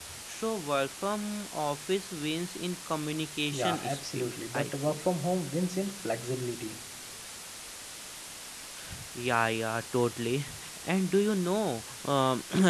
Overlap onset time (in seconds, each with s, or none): 3.5 s